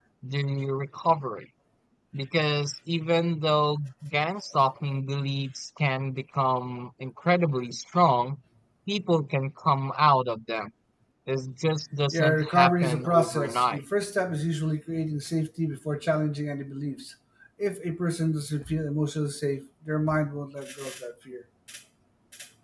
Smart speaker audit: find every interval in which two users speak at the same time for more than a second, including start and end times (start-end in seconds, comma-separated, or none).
12.1-13.8